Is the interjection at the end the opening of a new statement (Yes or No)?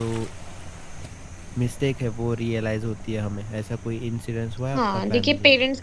Yes